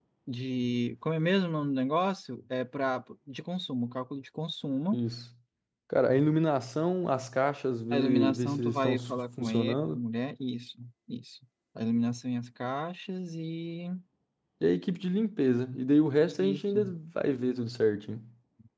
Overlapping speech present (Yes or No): Yes